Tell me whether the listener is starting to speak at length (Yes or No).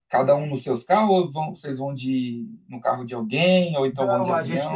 Yes